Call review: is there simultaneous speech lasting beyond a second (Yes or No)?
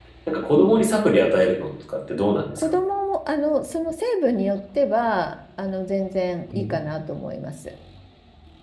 No